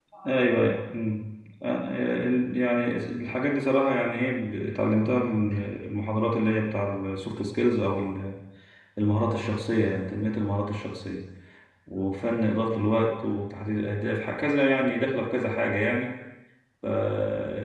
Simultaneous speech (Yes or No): No